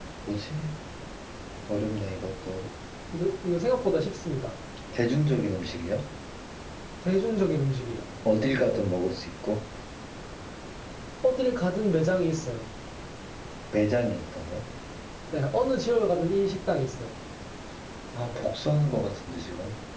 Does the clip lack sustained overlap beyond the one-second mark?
Yes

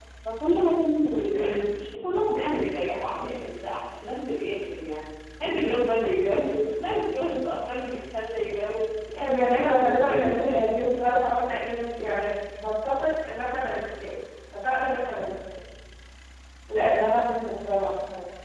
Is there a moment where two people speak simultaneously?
Yes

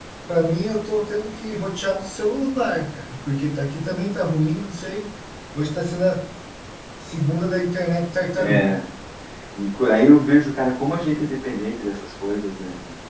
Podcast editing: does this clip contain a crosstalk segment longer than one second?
No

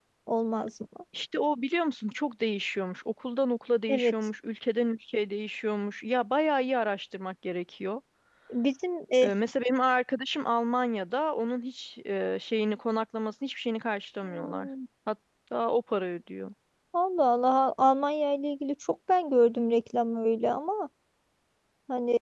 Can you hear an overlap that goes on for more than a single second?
No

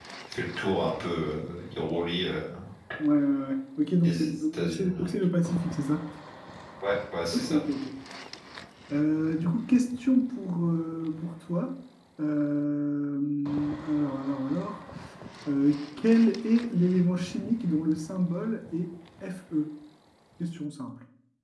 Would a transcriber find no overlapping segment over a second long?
No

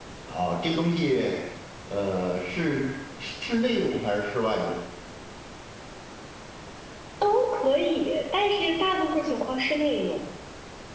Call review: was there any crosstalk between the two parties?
No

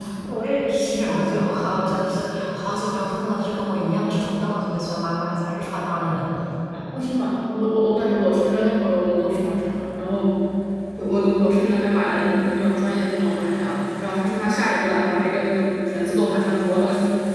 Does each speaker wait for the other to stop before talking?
Yes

